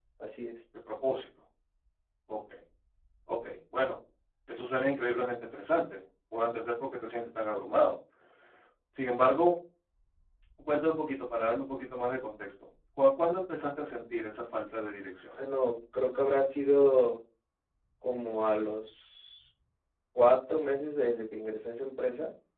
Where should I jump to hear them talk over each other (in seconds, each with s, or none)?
none